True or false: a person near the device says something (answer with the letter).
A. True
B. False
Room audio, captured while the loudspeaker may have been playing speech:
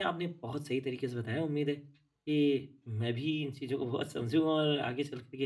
A